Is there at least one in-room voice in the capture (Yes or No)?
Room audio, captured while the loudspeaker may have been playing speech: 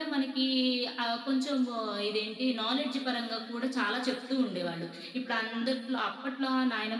No